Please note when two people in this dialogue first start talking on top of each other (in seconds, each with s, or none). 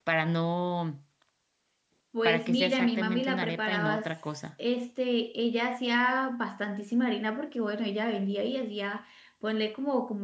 2.2 s